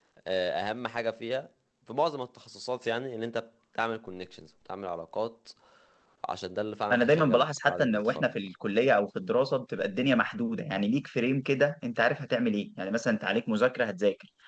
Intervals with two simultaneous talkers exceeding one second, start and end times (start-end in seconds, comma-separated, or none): 6.9-8.2